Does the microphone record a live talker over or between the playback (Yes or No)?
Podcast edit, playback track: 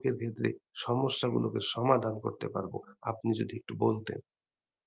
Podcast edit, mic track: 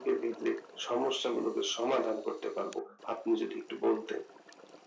No